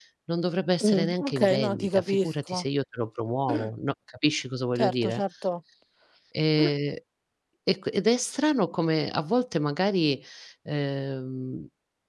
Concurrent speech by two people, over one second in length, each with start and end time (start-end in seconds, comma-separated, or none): 0.8-2.5